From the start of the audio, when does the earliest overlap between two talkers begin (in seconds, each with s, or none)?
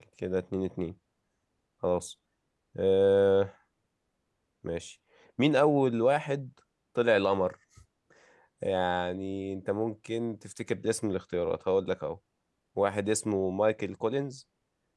none